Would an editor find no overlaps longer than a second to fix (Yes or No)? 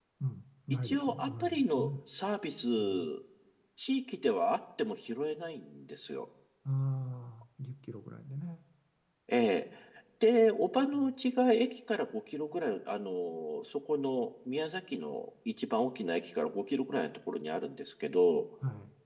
No